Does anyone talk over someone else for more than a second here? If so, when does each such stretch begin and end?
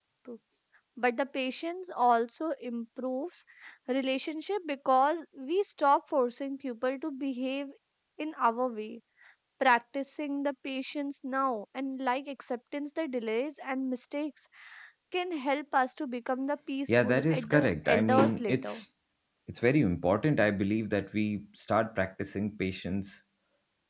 16.9-18.8

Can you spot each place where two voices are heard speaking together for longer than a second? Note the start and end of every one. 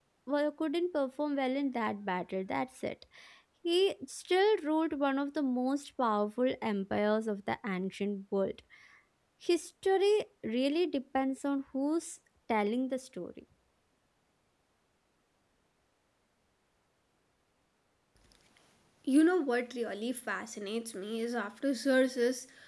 none

